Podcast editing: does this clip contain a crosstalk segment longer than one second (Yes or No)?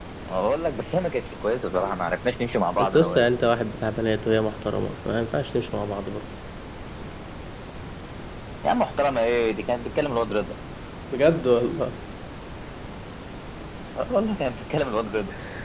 No